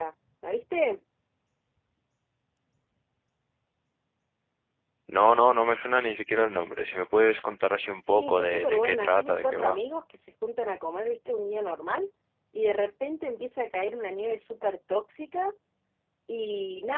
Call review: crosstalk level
present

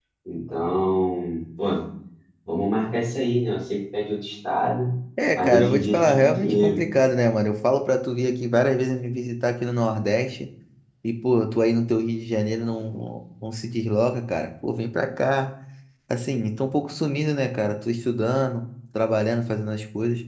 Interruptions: present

